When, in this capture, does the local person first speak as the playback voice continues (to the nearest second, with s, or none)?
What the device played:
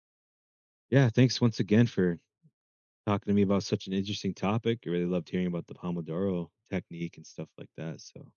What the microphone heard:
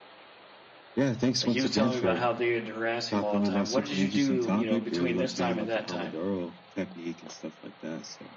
1 s